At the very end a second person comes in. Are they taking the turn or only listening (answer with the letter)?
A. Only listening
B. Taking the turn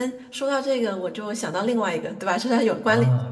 B